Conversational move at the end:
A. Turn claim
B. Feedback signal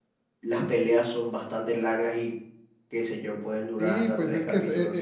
A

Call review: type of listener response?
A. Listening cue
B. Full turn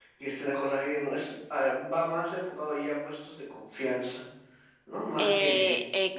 B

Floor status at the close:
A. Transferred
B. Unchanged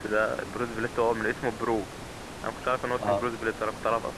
B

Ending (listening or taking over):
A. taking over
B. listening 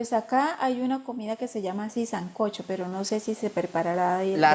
A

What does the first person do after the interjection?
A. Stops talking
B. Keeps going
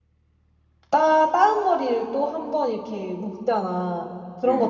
B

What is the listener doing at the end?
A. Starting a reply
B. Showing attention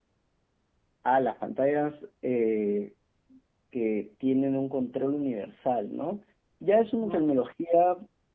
B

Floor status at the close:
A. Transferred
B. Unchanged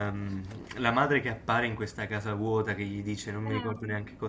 B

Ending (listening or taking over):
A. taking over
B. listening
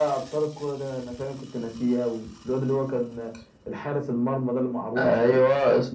A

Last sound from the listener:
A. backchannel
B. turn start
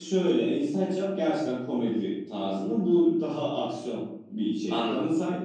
A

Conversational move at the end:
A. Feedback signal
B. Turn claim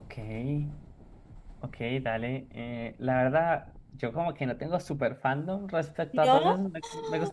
A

